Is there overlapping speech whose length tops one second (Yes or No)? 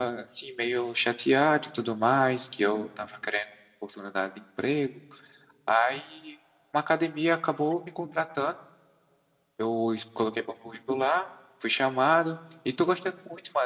No